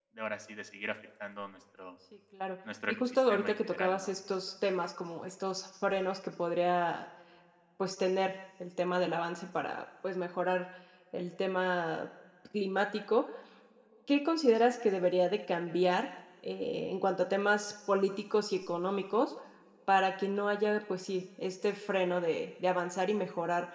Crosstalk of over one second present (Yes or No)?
Yes